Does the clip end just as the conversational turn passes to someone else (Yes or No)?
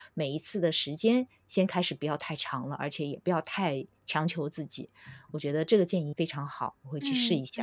Yes